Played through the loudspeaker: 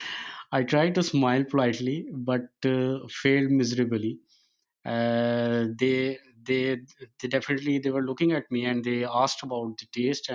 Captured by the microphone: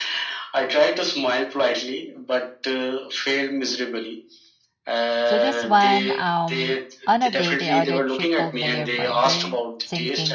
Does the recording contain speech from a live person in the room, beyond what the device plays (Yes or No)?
Yes